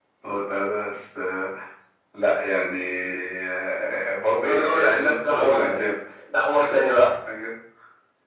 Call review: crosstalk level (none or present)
present